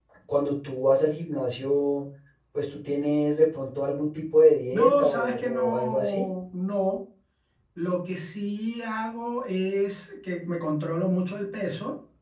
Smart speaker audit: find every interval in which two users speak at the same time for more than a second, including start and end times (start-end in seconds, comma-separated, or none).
4.7-6.2